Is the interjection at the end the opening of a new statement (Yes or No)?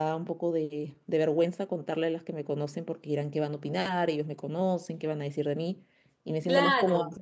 No